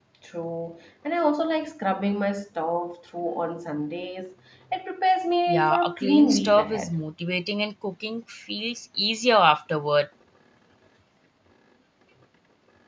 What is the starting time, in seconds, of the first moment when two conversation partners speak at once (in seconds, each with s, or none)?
5.5 s